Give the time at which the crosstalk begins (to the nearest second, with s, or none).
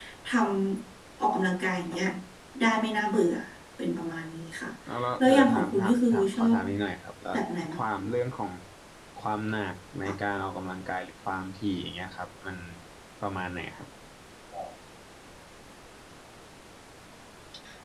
5 s